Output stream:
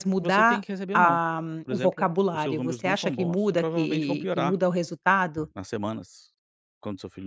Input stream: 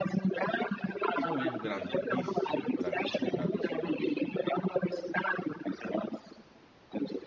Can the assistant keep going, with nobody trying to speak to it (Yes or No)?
No